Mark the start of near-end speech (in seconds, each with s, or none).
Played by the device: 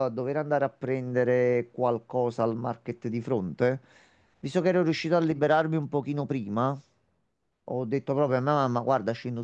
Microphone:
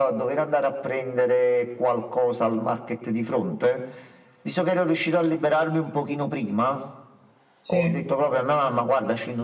7.6 s